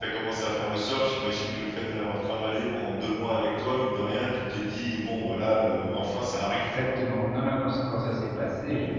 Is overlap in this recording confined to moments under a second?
Yes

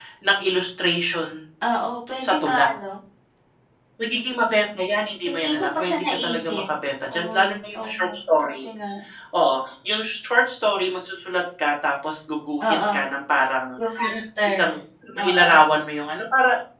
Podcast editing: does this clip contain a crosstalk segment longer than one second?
Yes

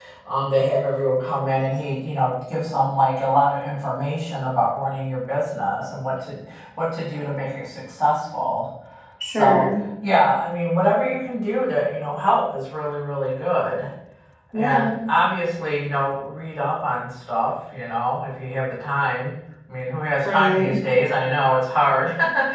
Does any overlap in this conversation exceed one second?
No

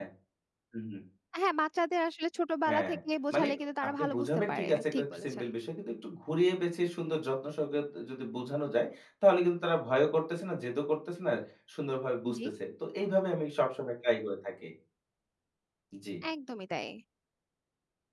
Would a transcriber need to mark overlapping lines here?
Yes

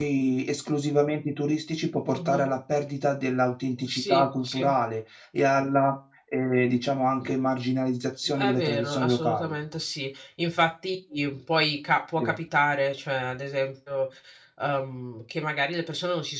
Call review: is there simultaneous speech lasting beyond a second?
Yes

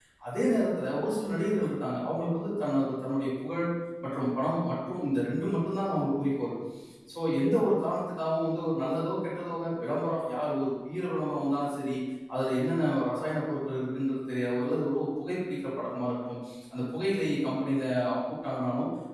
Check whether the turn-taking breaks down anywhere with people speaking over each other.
No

